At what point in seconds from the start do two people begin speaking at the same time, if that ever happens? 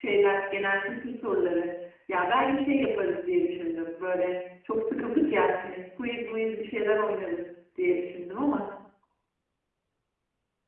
none

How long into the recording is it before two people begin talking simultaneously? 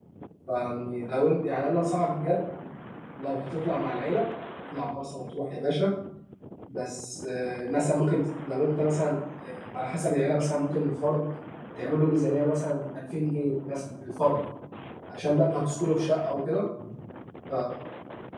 none

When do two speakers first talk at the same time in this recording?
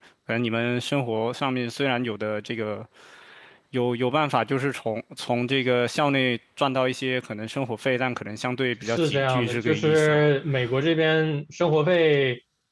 8.8 s

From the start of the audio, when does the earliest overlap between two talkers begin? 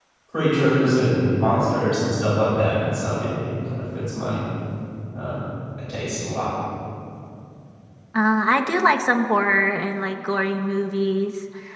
none

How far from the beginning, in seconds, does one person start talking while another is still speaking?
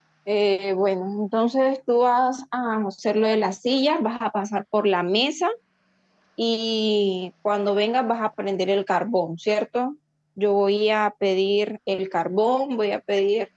none

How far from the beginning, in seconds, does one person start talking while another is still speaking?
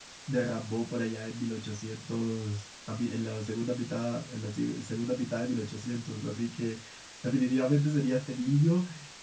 none

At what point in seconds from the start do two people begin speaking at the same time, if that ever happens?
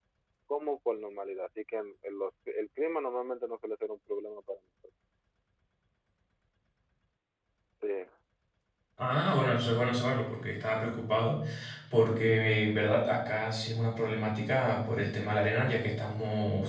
none

